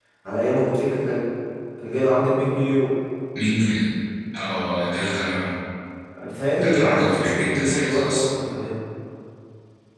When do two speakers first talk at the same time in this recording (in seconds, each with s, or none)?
6.6 s